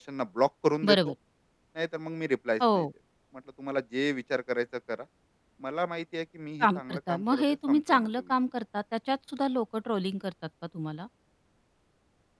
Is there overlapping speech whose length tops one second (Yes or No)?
Yes